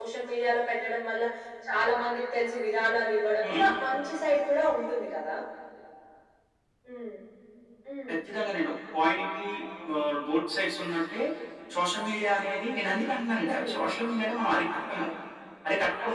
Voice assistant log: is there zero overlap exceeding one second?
Yes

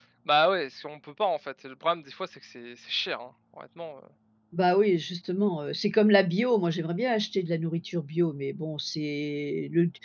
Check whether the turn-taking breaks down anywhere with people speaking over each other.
No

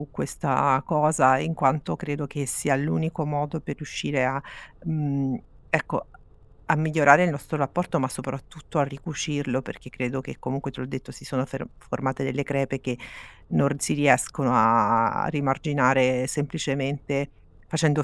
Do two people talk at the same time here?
No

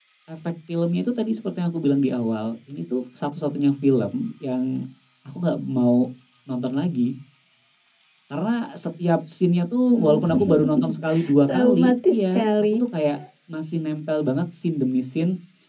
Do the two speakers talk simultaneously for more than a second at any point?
Yes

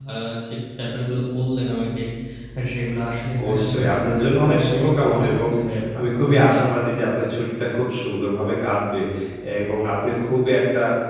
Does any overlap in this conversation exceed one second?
Yes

